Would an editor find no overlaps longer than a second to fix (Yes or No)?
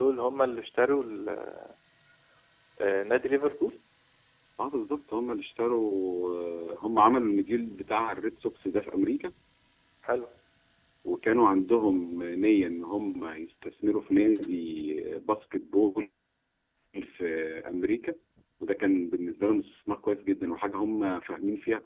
Yes